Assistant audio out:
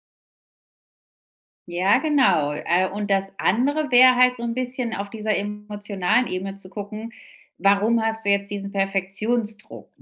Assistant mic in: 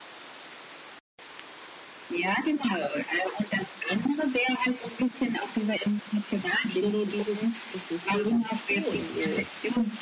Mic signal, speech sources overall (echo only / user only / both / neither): both